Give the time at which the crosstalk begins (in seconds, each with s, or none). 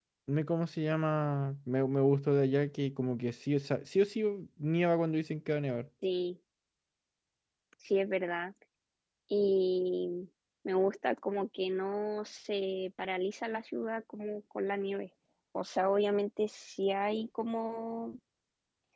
none